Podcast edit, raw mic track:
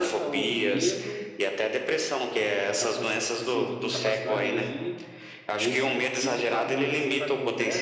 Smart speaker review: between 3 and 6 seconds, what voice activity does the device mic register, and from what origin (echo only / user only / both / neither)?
both